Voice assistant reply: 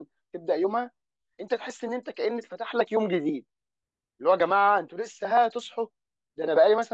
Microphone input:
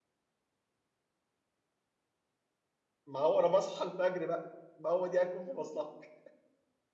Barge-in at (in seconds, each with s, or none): 3.0 s